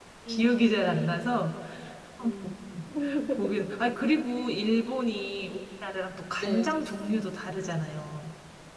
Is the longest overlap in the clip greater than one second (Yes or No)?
Yes